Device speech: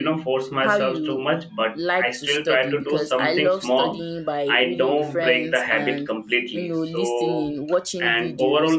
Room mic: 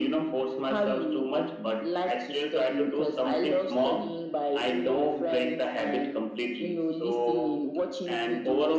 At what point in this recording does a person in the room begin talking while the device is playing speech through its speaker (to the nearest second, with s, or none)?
none